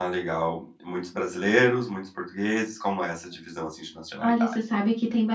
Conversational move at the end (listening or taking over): taking over